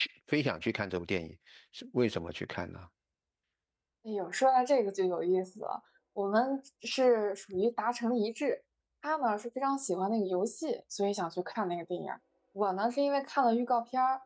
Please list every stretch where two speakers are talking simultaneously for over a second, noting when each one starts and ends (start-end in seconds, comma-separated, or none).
none